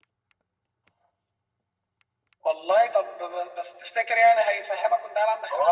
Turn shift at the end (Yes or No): Yes